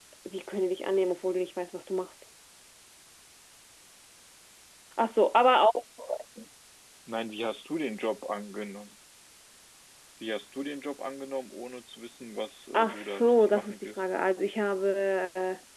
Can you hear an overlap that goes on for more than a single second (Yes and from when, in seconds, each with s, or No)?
Yes, from 12.7 s